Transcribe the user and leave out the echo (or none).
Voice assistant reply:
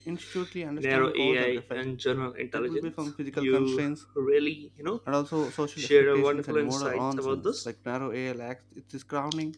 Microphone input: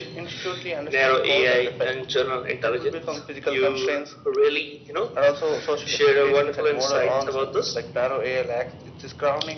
none